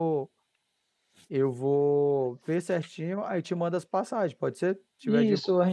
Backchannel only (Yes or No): No